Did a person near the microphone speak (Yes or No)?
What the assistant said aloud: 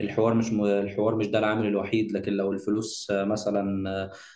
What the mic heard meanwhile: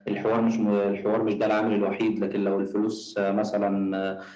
No